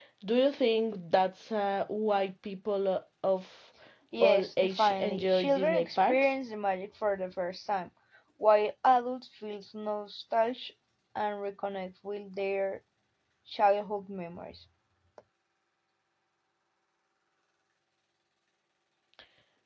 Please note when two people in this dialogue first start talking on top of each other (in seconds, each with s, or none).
4.2 s